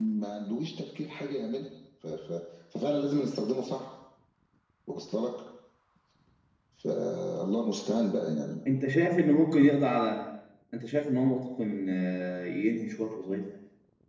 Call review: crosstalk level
none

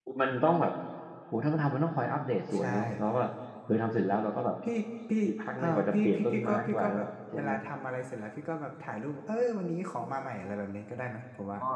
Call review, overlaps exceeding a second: present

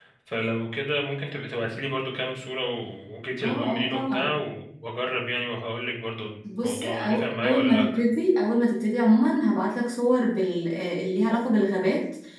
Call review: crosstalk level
present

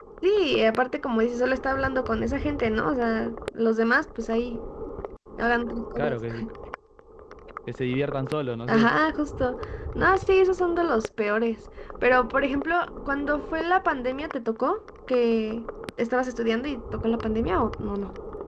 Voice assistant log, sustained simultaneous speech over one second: none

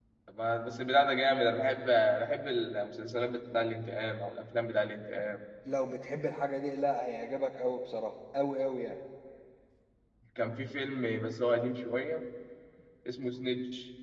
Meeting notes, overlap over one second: none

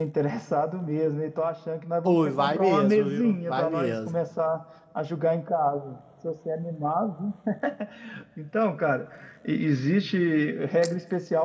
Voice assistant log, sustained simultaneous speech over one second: present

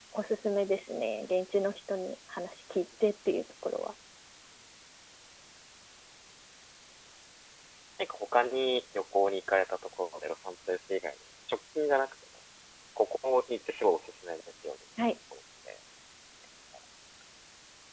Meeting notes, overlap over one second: none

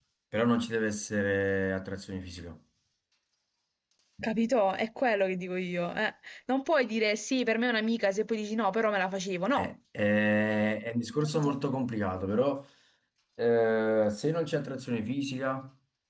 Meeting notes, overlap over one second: none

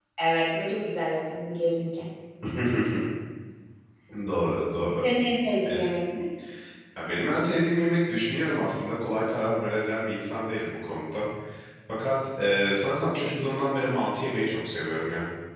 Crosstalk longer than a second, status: none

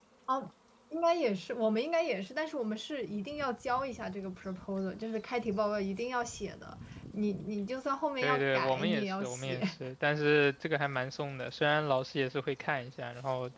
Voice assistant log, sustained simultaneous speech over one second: present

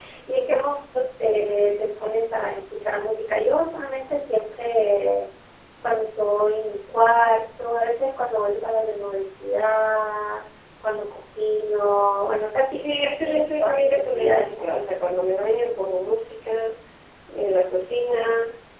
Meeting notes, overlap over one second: present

